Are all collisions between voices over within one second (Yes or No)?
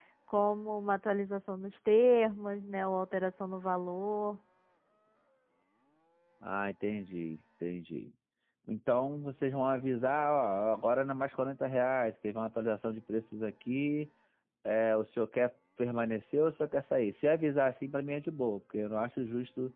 Yes